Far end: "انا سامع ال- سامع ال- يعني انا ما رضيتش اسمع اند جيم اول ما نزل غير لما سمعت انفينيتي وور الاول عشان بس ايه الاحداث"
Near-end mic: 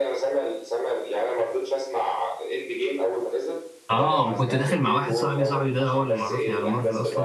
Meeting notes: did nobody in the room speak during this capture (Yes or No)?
No